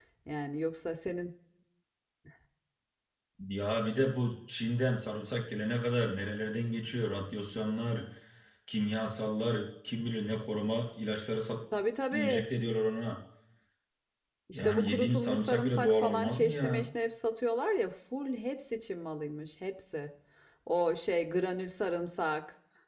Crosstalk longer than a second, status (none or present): present